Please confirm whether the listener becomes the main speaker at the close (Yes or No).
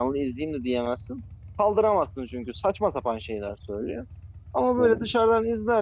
No